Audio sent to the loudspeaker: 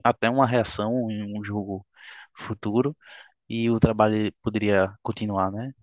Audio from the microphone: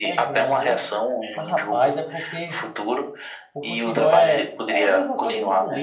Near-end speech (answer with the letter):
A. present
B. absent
A